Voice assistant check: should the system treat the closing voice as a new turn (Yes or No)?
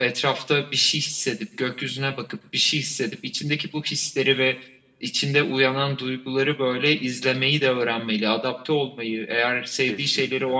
No